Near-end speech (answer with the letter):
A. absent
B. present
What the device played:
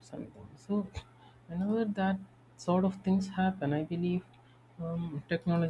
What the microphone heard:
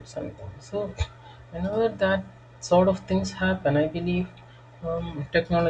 A